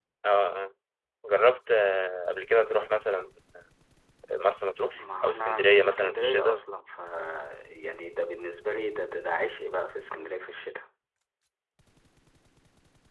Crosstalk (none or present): present